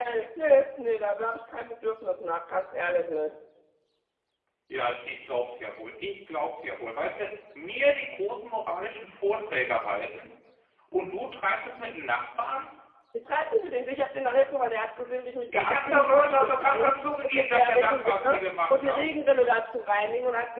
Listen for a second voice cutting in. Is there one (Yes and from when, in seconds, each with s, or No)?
Yes, from 15.5 s